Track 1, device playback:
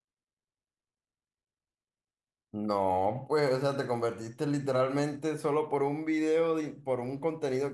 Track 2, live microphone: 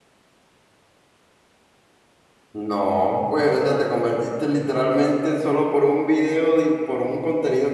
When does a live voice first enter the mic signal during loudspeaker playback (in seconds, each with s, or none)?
none